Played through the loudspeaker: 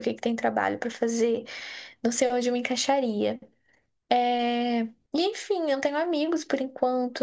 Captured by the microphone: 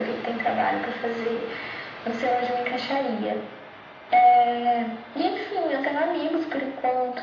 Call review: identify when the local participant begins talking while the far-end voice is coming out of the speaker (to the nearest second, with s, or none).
none